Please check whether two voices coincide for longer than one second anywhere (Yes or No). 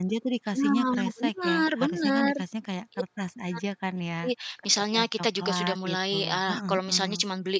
Yes